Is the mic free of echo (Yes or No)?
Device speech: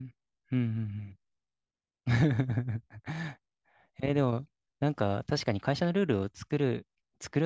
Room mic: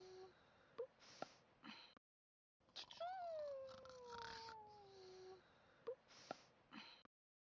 Yes